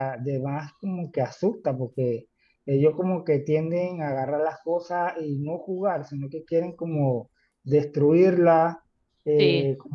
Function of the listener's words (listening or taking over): listening